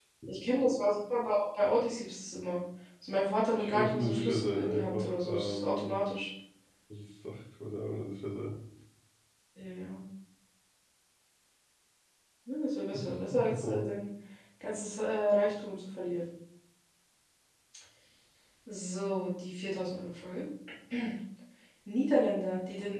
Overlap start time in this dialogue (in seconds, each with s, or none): 3.6 s